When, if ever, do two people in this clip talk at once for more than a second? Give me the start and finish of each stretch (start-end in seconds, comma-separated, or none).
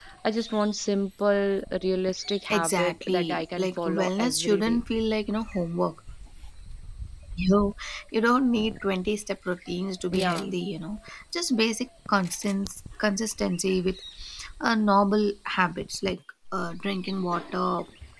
2.5-4.8